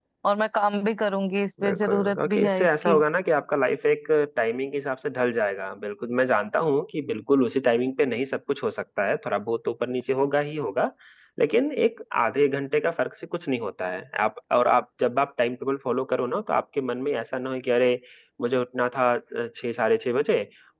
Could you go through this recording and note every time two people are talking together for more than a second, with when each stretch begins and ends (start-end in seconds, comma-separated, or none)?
1.6-3.0